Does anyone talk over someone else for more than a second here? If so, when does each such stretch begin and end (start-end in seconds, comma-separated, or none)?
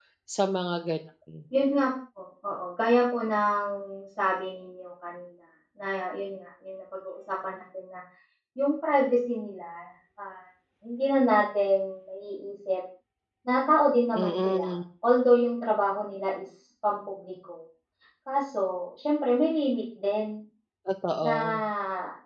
none